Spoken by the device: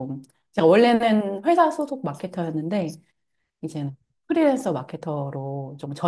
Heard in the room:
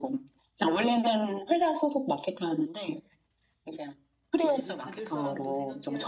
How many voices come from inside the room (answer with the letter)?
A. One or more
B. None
A